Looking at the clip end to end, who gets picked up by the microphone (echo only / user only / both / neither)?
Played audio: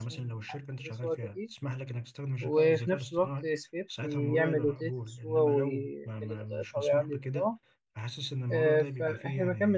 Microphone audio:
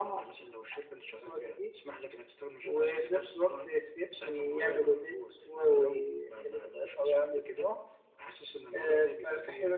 echo only